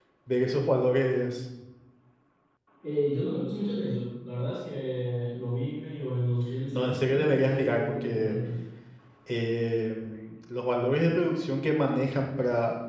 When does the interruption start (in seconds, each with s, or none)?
6.7 s